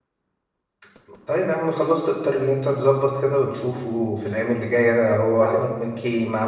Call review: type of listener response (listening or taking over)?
listening